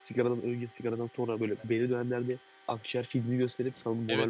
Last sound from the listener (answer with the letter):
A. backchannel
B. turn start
B